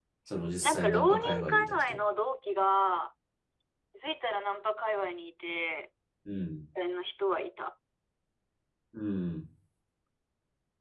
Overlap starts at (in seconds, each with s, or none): 0.6 s